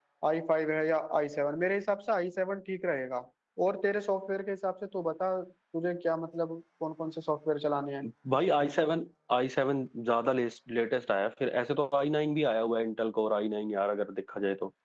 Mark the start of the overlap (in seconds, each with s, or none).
none